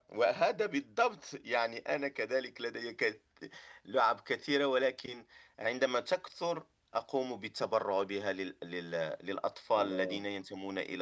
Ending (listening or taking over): listening